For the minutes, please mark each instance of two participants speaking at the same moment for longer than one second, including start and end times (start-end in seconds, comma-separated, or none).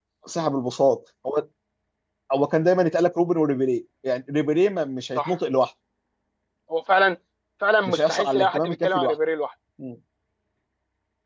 7.9-9.1